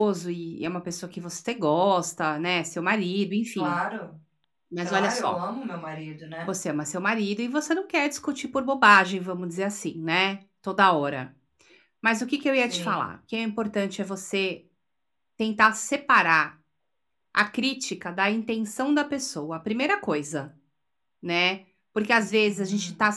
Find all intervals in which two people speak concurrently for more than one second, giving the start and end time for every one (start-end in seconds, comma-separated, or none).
none